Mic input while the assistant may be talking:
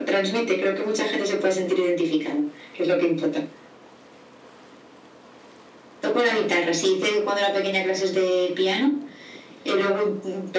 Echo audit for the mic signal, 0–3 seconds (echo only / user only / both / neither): echo only